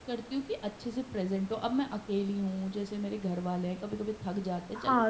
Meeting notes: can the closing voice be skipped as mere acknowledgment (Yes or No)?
No